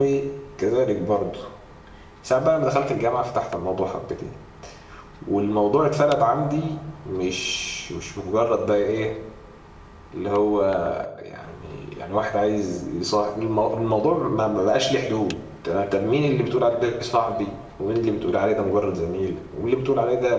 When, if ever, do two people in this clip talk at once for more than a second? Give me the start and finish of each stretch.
none

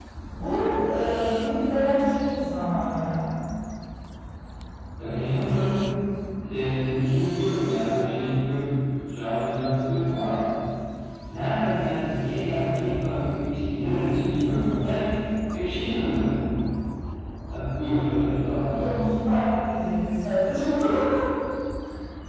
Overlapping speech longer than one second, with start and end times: none

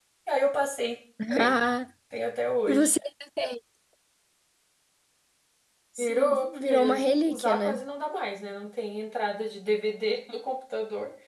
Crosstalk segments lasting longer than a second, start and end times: 6.0-7.8

